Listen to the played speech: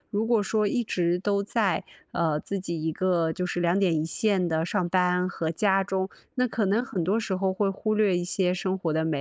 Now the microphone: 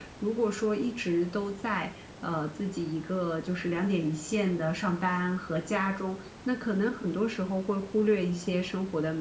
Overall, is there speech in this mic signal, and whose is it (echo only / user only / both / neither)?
echo only